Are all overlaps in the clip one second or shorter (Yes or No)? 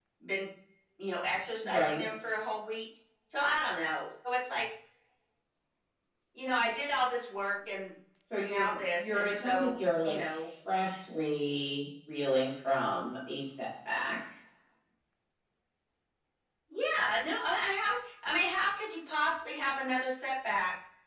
No